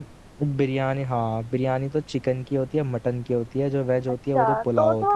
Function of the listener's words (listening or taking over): taking over